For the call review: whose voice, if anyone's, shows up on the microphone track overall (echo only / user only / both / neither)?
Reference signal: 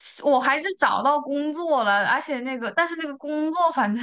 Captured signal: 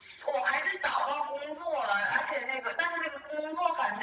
echo only